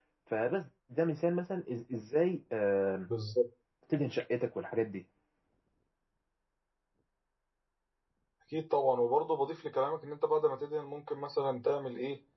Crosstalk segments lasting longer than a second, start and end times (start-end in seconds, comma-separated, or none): none